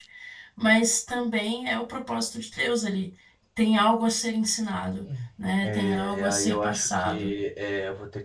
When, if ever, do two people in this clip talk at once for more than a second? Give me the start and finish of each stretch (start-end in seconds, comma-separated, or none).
5.6-7.3